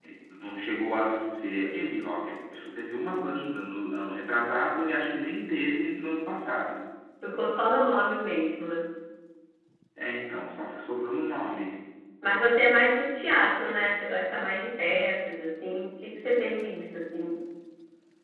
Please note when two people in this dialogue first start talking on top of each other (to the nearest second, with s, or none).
none